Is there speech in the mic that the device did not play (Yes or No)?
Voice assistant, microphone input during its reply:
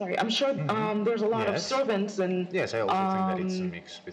Yes